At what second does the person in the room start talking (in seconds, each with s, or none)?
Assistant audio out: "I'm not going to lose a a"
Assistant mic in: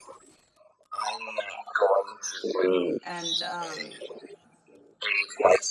3.0 s